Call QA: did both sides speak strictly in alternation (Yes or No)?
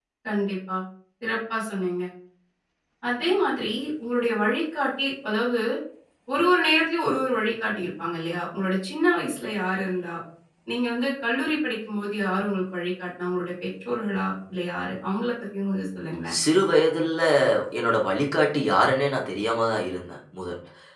Yes